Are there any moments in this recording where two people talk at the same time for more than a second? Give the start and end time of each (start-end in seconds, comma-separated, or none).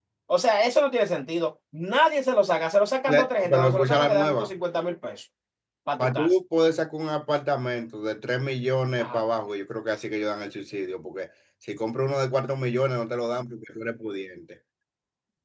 3.1-4.5